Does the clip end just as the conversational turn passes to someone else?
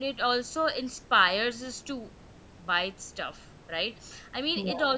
No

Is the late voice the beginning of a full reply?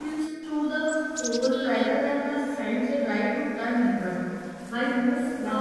No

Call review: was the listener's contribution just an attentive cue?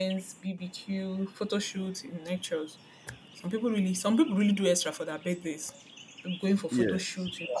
Yes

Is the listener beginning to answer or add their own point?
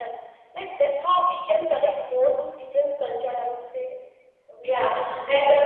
Yes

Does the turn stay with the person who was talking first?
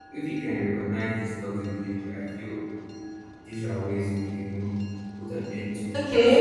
No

